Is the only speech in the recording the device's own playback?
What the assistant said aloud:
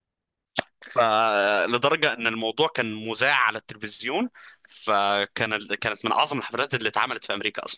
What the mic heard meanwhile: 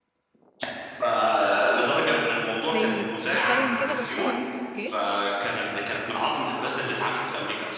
No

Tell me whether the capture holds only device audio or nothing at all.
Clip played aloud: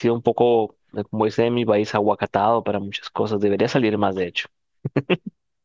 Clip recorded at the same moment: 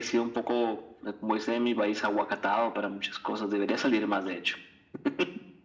Yes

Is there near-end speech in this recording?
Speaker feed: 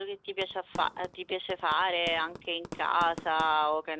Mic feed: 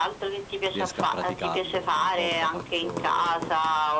Yes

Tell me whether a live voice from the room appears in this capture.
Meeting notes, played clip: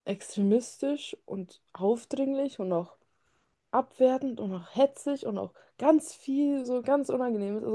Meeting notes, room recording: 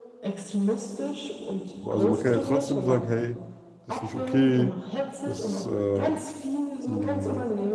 Yes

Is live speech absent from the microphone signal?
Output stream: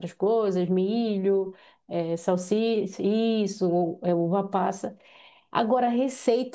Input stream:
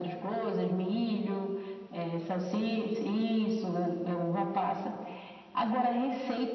Yes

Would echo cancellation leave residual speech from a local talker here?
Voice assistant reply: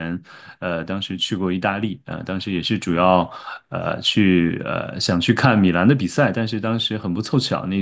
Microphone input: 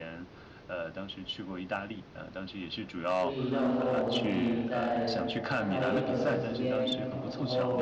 Yes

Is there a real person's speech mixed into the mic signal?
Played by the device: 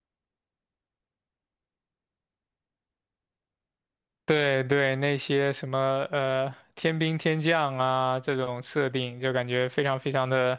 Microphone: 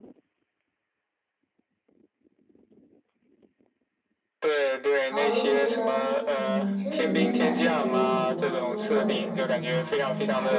Yes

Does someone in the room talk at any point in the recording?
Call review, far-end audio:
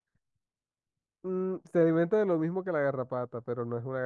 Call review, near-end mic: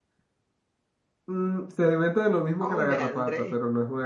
Yes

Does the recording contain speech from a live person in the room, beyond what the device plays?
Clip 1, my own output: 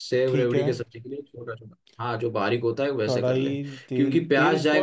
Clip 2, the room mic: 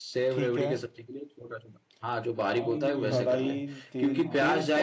Yes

